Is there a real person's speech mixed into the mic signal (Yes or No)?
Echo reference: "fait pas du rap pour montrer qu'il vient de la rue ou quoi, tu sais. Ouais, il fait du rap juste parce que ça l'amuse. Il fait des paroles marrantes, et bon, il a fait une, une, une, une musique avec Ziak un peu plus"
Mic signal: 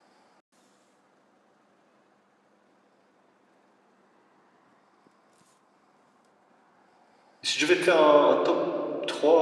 Yes